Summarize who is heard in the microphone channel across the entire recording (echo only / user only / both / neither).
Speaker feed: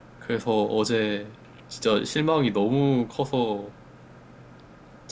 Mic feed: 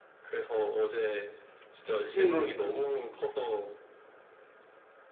both